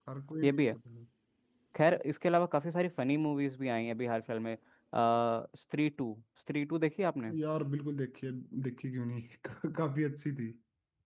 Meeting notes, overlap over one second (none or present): none